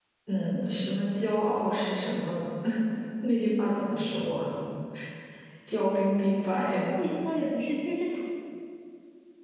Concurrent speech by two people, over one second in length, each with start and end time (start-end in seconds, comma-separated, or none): none